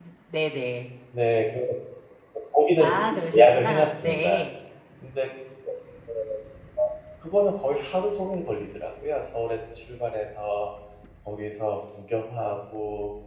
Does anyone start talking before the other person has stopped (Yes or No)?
Yes